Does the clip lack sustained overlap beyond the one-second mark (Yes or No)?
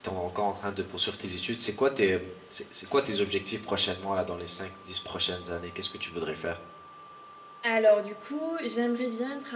Yes